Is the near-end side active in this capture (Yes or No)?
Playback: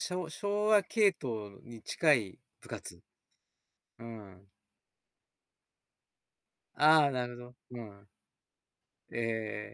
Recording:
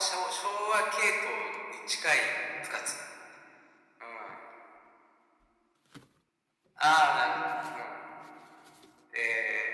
No